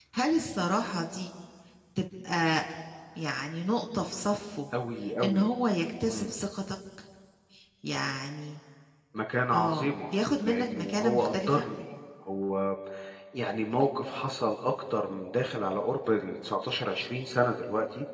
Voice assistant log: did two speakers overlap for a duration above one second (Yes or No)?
Yes